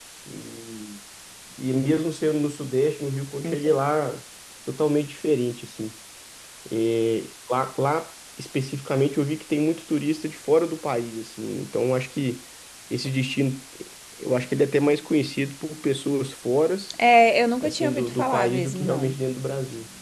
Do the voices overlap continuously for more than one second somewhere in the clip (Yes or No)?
Yes